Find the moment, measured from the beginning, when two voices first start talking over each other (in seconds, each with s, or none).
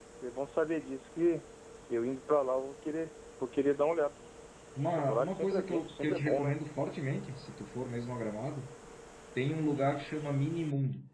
5.0 s